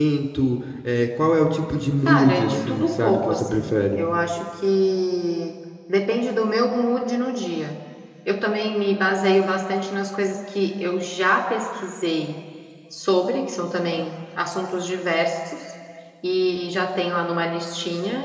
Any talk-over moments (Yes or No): Yes